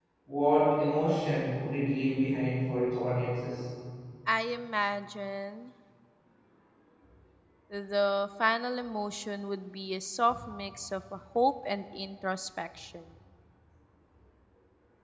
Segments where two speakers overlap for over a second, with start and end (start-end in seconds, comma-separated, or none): none